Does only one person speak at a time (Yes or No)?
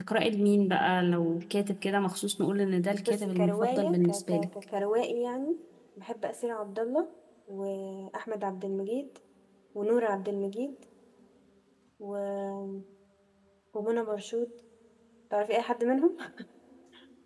No